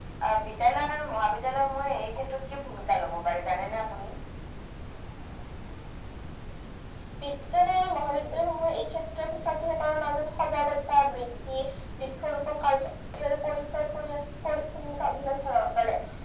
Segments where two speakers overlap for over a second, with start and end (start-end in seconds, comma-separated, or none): none